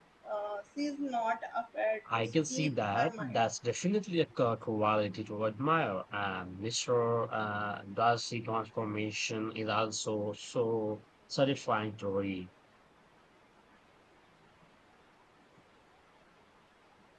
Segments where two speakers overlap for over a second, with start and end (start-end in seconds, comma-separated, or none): 2.1-3.4